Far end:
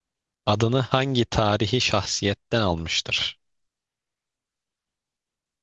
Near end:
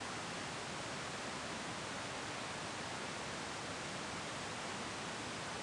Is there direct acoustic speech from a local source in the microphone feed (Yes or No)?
No